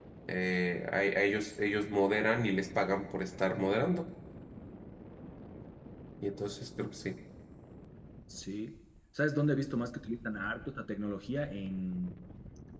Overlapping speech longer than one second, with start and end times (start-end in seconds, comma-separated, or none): none